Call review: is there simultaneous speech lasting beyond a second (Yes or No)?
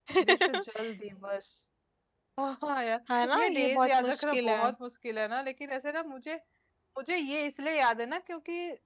Yes